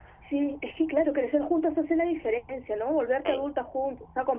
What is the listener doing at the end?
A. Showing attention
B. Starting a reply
A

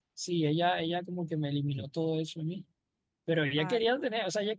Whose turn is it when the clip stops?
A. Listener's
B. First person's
B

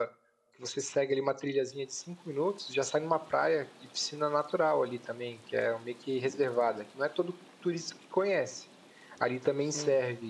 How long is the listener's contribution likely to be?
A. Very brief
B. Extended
A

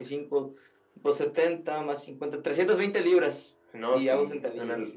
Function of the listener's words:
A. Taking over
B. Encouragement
A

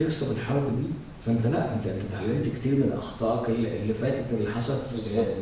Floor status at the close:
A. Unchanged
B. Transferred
B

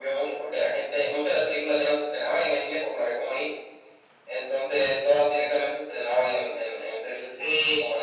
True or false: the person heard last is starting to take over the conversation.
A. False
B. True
B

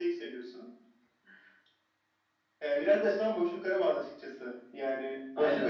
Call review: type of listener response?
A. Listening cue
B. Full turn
A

